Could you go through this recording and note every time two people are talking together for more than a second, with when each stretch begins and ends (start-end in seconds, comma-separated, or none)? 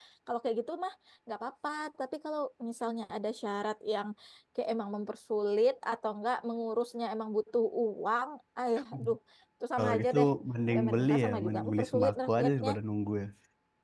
10.7-12.7